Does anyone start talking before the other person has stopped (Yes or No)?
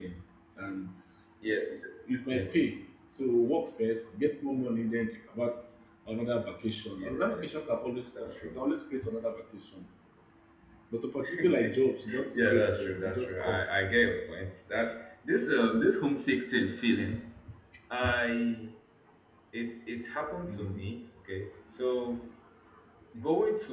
Yes